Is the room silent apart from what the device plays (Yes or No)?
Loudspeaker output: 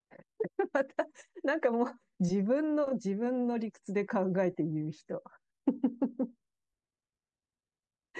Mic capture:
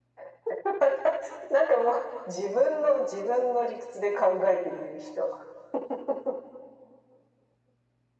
Yes